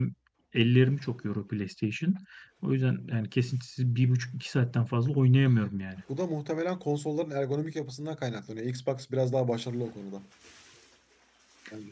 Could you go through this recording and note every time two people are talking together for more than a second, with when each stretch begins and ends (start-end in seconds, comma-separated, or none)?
none